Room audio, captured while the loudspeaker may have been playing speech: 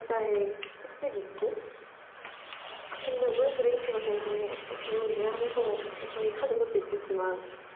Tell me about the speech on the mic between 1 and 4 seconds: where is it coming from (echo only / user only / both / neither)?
echo only